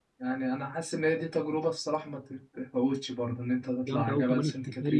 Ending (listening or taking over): taking over